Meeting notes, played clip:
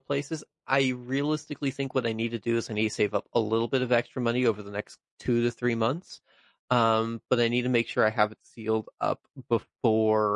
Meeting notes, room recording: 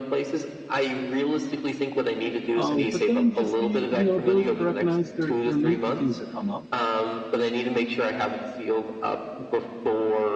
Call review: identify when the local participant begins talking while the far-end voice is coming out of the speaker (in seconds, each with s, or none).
2.5 s